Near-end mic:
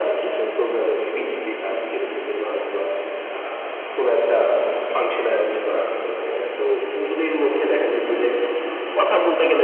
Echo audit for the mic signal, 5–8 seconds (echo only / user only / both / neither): echo only